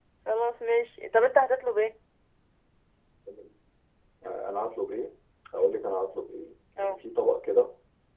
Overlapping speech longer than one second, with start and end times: none

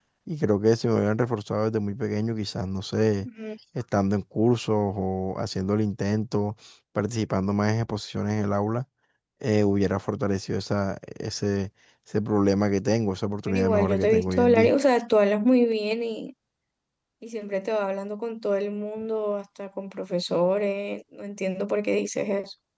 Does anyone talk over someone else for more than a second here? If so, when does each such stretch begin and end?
13.5-14.7

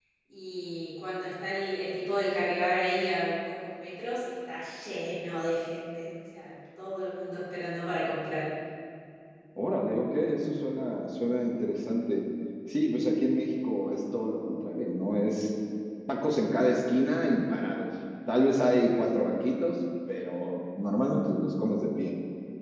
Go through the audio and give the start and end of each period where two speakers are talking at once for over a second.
none

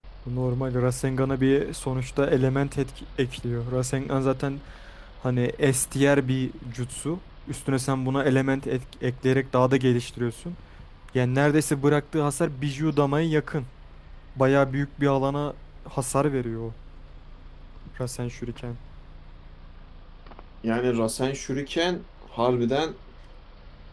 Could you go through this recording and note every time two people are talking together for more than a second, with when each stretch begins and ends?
none

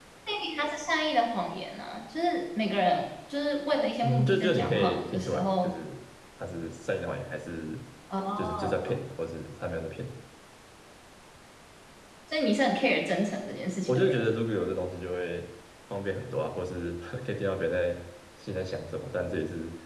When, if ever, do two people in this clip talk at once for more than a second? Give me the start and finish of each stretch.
4.0-5.7

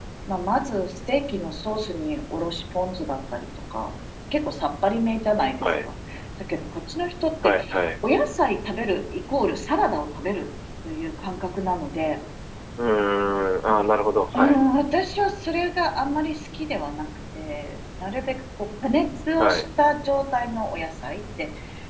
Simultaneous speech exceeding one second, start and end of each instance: none

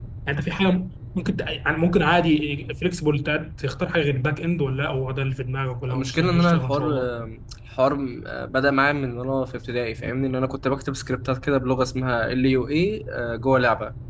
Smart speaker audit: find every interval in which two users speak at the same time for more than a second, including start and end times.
5.9-7.1

